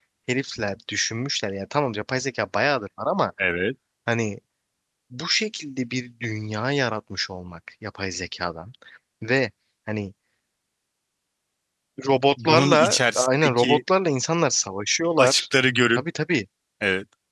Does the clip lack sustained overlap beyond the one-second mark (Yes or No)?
No